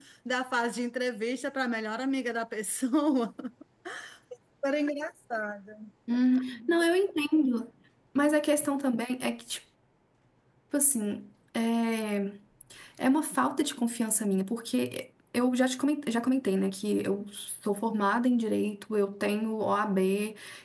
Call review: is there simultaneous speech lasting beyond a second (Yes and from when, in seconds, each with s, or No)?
No